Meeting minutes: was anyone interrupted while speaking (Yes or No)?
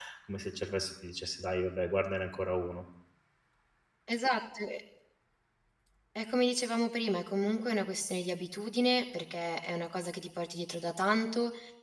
No